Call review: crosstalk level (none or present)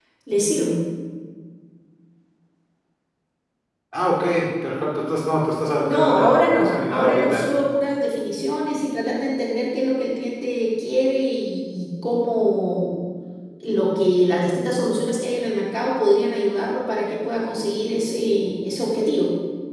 present